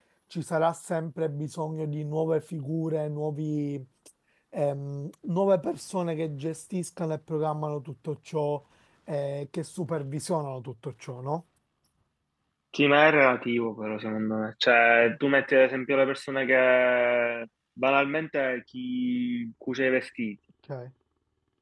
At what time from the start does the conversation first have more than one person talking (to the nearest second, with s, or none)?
none